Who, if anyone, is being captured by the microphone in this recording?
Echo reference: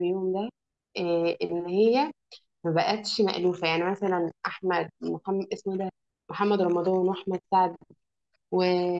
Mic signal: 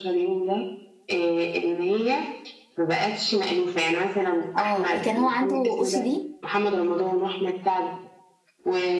both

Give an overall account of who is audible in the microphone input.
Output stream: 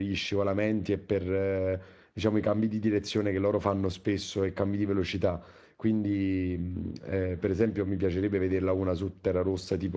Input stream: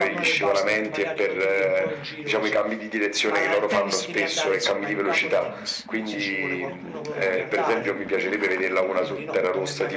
both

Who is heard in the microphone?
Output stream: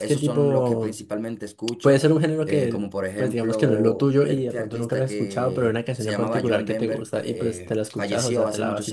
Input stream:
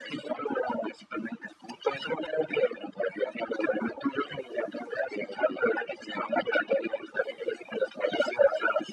echo only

